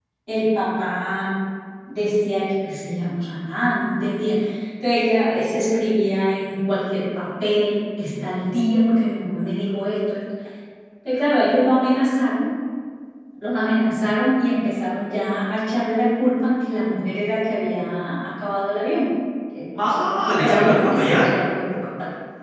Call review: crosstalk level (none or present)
present